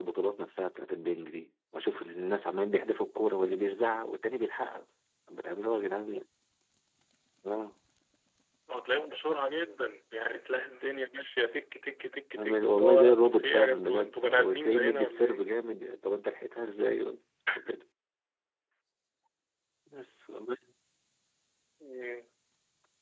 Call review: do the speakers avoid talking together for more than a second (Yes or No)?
No